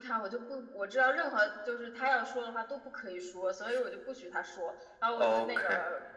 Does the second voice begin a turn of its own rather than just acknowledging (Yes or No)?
No